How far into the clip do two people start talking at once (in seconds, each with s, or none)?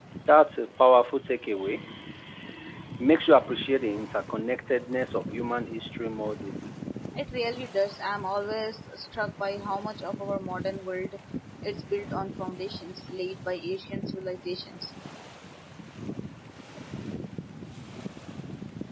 none